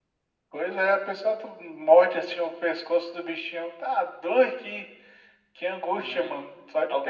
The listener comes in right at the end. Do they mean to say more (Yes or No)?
Yes